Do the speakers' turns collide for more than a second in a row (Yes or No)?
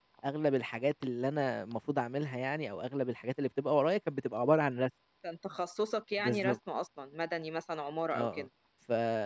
No